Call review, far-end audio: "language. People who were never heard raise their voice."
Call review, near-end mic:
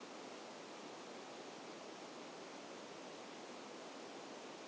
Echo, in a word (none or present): none